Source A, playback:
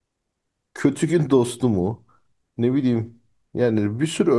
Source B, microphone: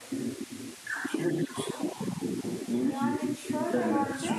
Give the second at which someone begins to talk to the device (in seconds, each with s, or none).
2.8 s